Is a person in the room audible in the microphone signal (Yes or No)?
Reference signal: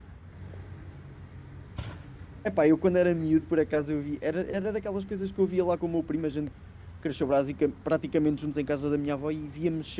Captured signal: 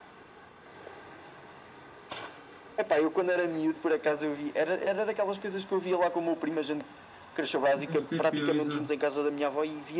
Yes